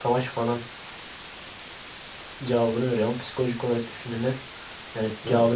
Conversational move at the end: listening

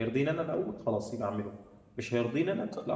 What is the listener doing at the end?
listening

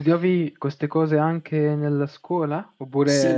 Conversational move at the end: taking over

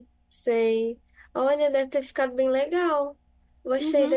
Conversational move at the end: taking over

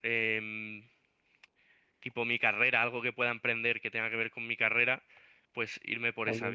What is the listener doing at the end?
taking over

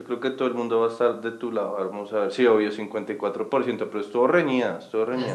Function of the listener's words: taking over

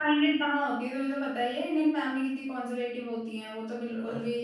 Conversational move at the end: taking over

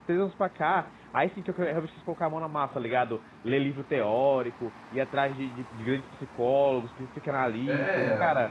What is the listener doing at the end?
taking over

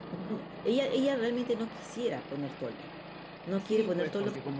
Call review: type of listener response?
taking over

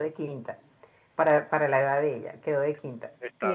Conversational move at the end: listening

